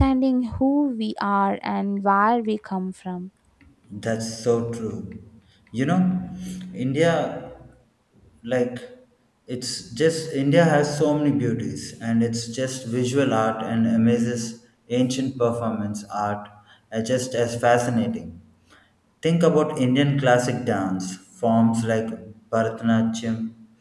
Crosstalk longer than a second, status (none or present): none